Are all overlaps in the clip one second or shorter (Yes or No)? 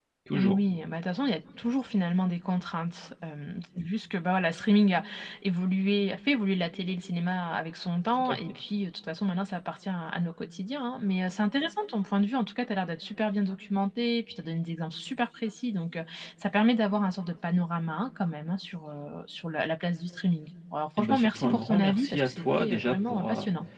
No